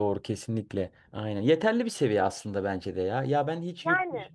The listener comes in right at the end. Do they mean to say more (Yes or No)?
No